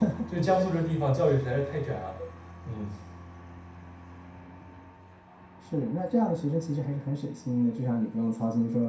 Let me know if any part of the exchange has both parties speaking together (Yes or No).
No